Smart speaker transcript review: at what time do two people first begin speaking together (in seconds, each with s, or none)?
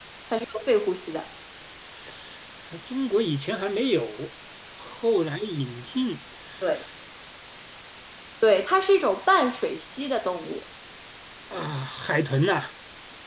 none